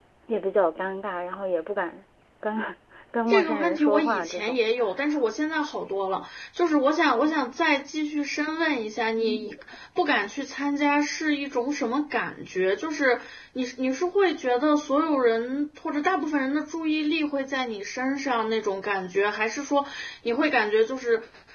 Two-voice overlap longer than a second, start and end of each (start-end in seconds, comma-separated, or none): 3.3-4.6